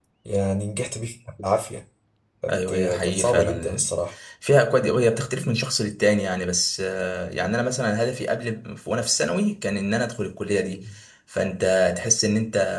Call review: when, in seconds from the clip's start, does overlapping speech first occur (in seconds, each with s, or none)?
2.5 s